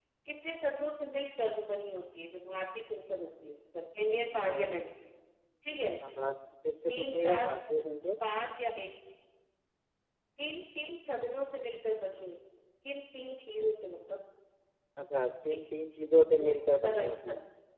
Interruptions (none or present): present